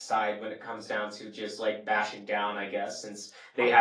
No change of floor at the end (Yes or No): Yes